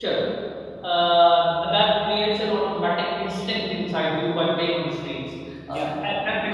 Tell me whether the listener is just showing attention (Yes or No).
Yes